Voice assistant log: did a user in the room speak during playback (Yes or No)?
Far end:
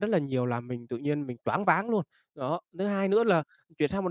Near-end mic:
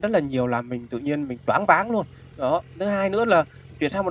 No